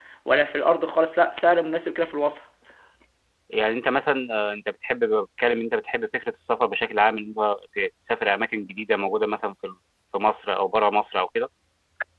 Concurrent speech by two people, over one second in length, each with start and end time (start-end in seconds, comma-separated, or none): none